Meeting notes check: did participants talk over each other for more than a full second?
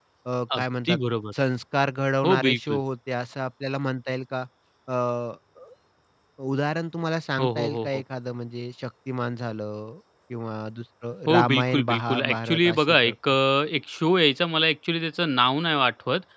Yes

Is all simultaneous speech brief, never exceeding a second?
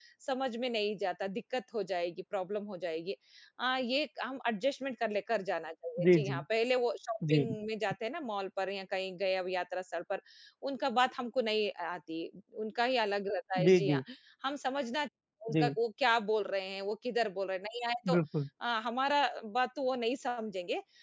Yes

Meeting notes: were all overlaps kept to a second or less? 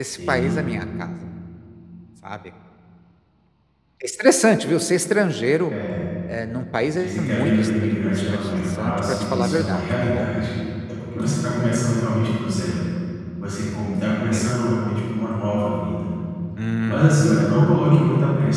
No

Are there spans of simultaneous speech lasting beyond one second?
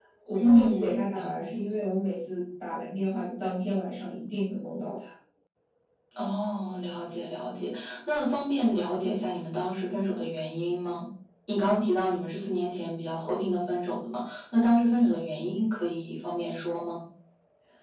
Yes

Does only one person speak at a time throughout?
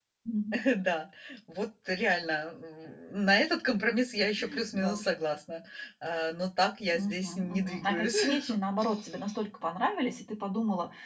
No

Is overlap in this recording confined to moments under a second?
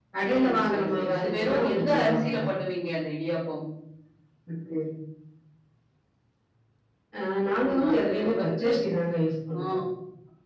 No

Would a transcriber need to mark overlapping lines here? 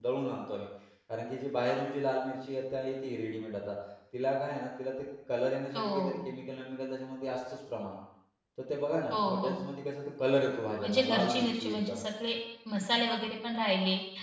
Yes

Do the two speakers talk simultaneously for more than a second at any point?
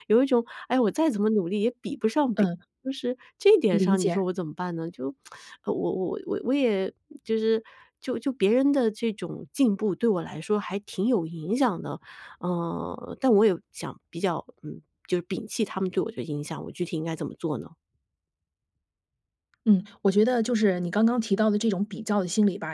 No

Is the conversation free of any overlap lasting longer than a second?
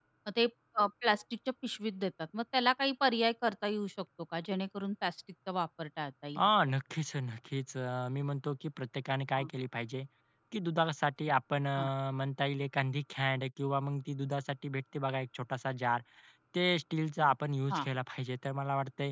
Yes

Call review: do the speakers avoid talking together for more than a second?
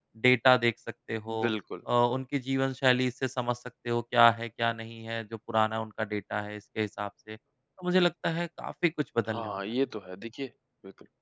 Yes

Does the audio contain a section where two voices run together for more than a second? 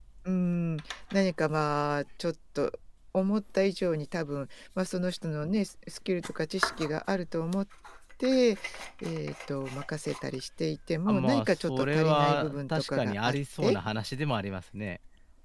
Yes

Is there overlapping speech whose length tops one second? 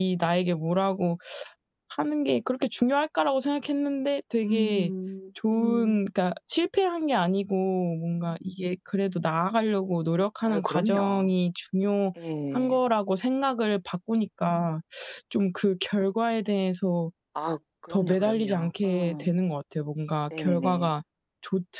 Yes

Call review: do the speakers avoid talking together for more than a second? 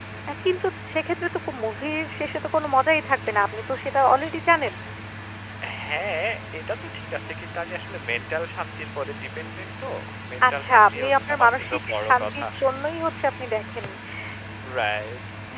No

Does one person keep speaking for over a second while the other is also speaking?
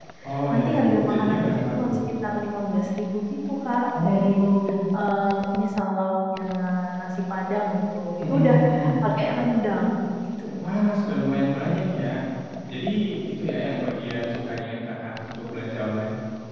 Yes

